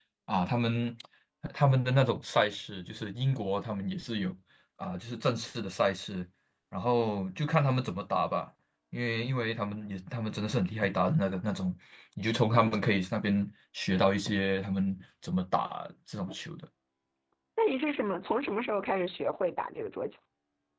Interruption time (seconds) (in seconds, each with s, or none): none